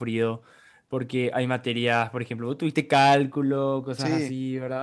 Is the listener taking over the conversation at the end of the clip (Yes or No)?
No